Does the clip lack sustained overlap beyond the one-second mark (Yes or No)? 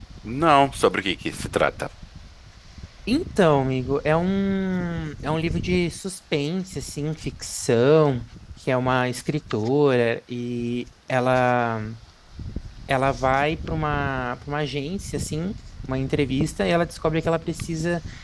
Yes